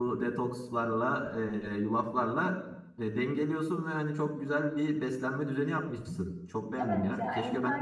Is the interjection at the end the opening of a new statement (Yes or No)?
Yes